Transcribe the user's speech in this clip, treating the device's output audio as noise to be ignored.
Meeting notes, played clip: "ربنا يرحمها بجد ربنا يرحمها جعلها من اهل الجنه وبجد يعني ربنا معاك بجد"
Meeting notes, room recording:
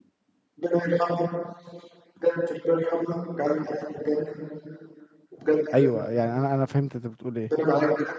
ايوه يعني انا انا فهمت انت بتقول ايه

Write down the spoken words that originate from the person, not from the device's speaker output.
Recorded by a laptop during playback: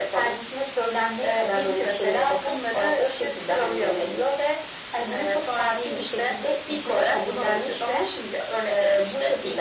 none

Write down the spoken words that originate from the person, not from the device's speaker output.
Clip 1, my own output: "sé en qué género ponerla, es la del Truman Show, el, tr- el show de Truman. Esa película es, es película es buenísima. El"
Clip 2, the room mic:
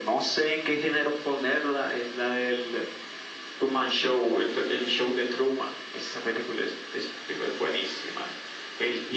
none

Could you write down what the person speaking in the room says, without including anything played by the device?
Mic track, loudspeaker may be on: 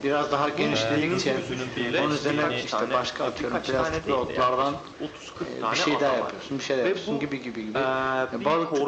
e, gökyüzünün birleştiğini

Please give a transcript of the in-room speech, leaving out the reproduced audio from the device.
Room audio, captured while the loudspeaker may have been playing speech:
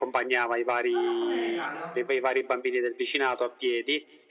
dono come regalo,

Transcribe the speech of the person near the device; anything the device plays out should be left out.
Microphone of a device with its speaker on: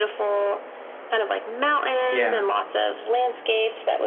Yeah.

